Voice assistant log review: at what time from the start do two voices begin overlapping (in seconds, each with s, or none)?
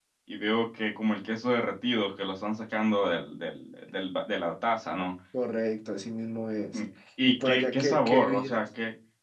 7.3 s